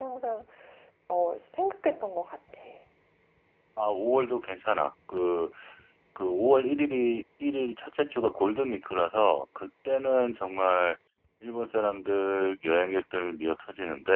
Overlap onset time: none

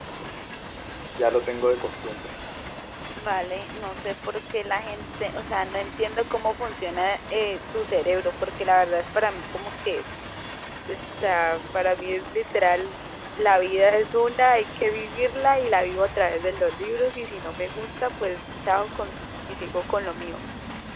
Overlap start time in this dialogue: none

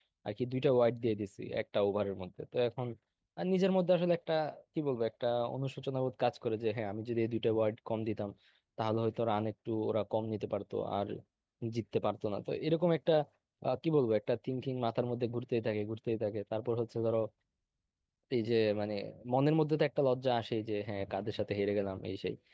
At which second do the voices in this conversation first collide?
none

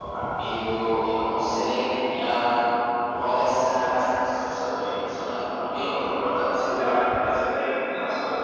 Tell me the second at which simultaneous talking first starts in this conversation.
none

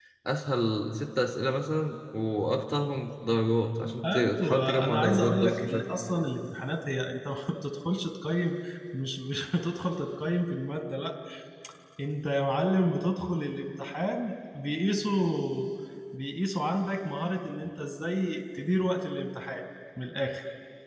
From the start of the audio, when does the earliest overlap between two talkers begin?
4.0 s

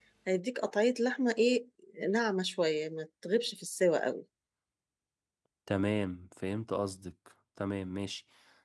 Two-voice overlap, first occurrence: none

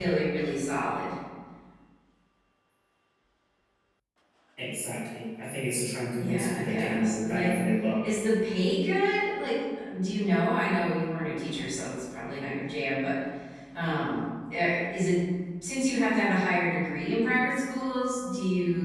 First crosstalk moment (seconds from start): 6.2 s

